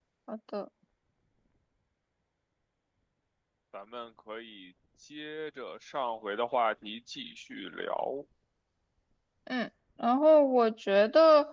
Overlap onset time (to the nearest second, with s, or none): none